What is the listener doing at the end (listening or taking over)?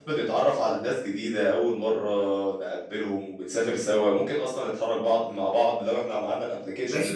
taking over